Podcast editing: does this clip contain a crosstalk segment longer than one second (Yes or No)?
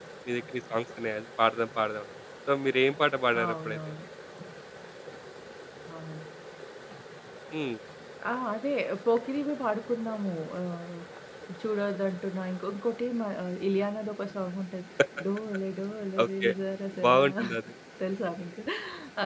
No